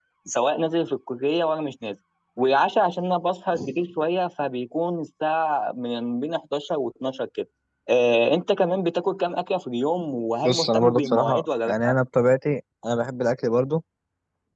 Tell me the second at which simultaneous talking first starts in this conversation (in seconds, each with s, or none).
10.4 s